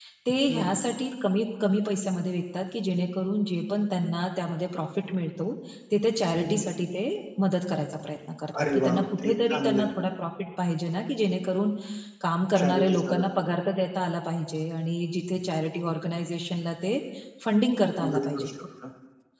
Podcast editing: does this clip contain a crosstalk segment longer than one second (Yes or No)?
Yes